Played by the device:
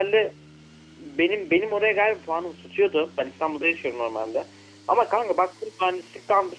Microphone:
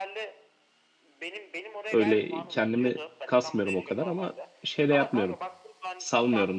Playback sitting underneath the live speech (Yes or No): Yes